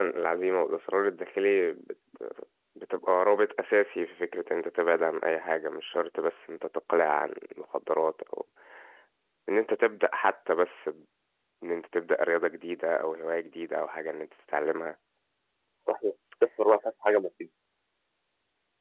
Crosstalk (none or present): none